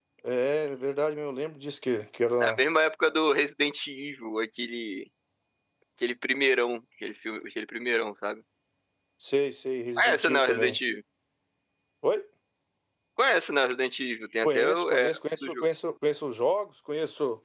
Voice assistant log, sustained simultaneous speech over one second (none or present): present